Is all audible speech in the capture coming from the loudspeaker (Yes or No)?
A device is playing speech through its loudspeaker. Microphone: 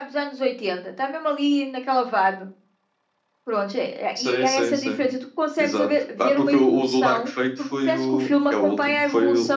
Yes